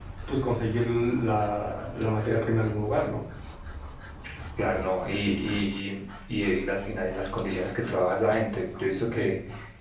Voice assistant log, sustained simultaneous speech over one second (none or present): none